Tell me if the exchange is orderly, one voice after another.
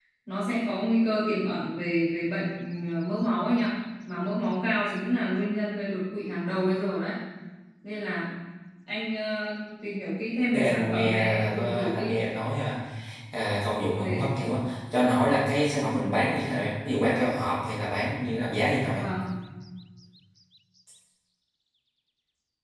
No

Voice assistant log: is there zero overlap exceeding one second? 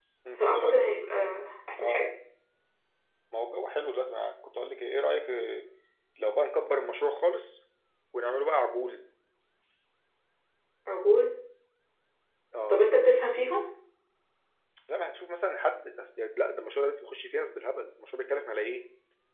Yes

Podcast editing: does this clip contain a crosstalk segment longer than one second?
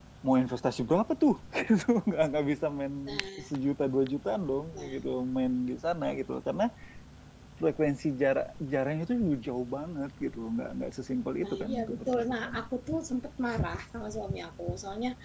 Yes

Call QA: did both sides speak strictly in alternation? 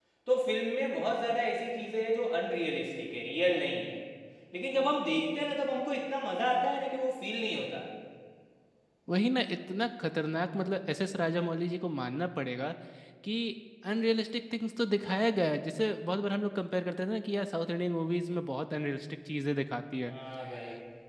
Yes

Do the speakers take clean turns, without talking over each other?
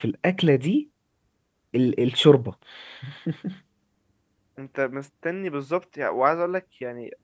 Yes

